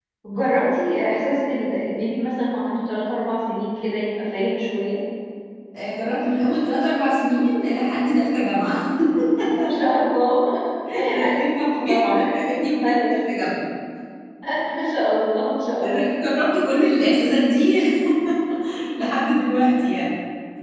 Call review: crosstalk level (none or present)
present